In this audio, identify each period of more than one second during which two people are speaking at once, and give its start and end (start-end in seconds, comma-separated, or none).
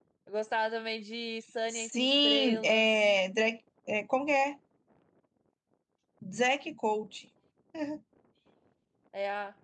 1.7-3.1